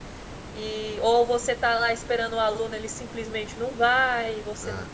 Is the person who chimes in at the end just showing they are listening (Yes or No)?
Yes